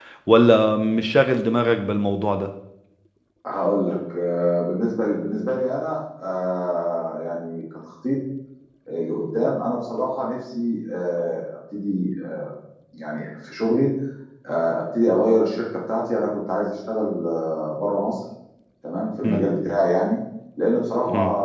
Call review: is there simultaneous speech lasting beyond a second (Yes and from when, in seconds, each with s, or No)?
No